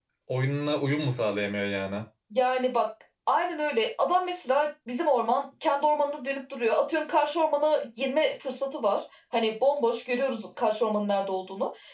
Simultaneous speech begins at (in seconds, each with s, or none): none